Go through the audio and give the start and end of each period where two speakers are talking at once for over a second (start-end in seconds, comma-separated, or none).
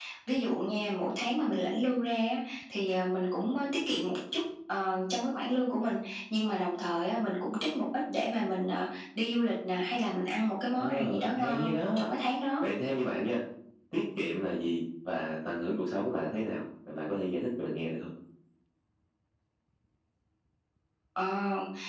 10.8-12.1